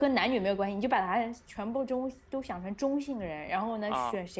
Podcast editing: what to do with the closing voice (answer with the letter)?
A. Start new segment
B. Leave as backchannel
B